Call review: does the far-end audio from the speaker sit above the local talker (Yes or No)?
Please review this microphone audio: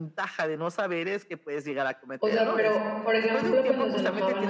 No